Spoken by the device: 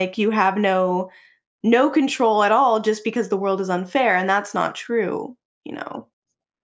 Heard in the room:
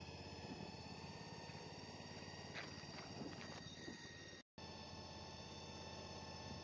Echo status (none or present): none